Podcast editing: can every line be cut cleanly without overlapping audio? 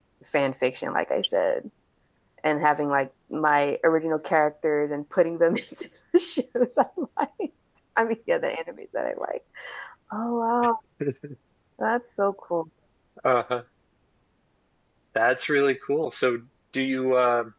Yes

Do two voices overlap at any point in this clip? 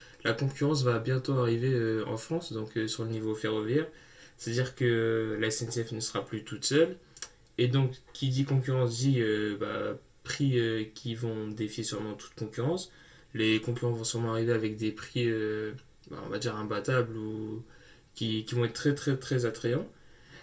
No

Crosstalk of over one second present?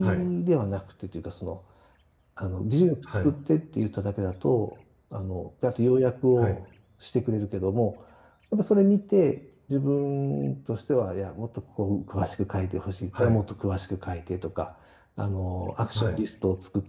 No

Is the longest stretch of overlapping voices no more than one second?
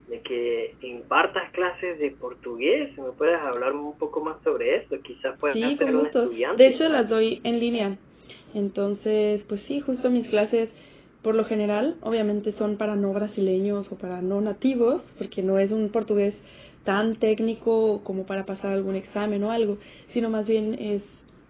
No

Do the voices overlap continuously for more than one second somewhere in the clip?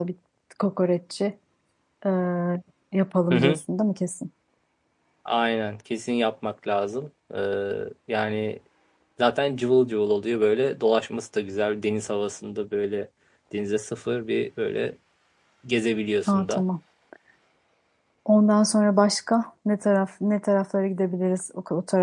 No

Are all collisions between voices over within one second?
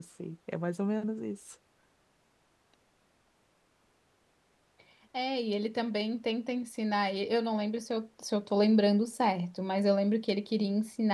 Yes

